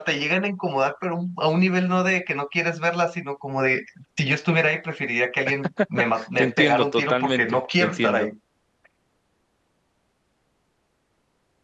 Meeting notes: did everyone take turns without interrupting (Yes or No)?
No